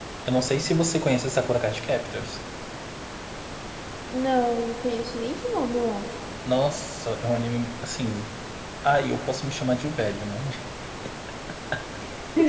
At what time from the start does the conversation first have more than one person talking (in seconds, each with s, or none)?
none